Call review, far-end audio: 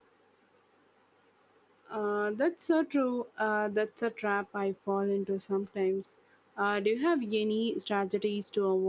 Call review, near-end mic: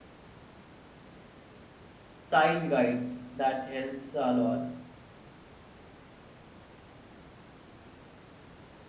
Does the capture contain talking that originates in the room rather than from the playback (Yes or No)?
Yes